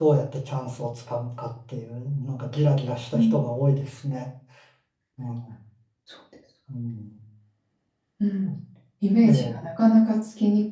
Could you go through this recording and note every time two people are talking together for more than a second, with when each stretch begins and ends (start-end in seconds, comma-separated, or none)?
none